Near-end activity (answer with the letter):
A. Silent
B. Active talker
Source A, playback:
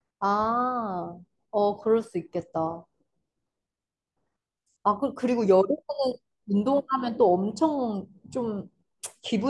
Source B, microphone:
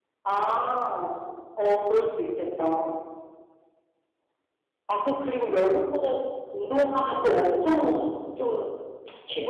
A